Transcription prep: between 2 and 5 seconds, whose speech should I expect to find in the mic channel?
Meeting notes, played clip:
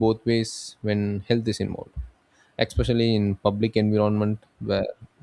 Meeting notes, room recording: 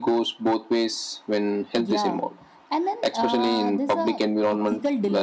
both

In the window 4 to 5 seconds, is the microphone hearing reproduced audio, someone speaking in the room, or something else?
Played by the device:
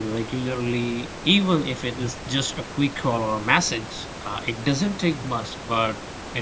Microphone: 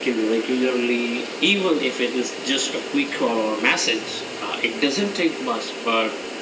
echo only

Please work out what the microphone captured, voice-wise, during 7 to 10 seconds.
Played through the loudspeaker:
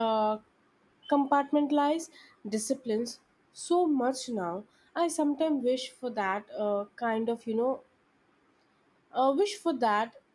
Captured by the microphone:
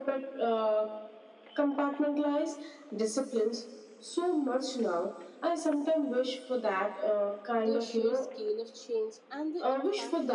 both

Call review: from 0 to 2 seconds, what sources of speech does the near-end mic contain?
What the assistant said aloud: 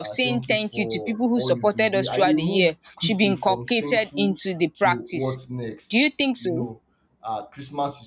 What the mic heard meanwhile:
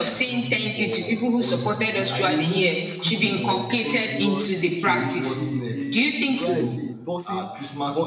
echo only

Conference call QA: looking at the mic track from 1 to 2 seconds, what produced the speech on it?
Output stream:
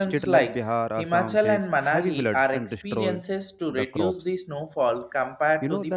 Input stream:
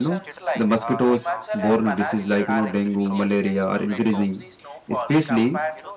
both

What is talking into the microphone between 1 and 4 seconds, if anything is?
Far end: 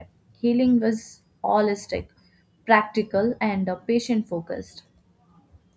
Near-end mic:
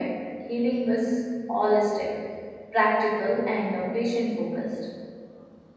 echo only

